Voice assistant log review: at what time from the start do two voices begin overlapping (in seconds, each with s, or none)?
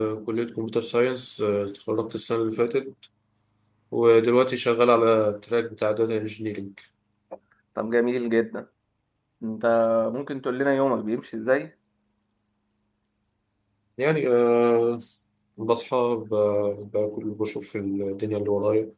none